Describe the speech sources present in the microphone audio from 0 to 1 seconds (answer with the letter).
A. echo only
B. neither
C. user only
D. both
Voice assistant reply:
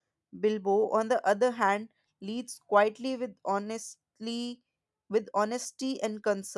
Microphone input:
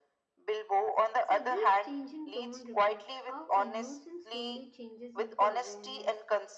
A